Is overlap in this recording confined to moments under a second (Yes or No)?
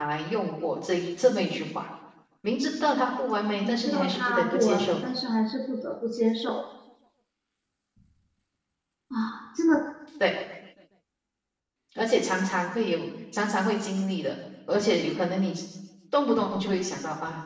No